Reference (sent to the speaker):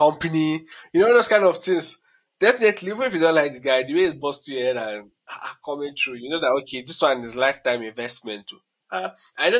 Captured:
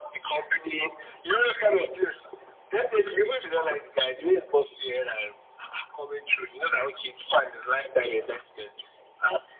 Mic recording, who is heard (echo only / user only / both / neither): echo only